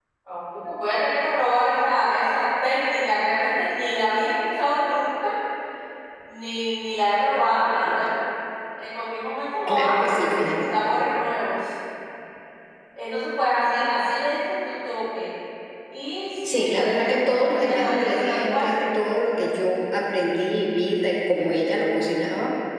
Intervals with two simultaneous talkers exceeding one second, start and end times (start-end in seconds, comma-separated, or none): 16.4-18.7